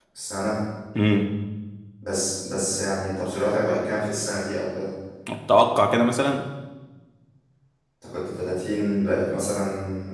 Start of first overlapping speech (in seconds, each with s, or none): none